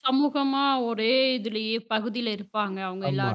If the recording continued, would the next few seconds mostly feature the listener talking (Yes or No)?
Yes